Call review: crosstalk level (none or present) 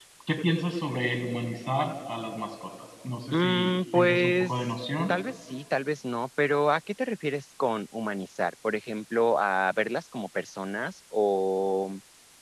present